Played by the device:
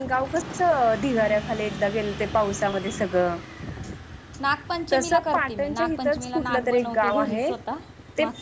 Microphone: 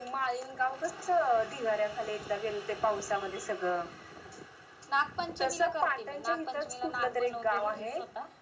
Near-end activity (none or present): none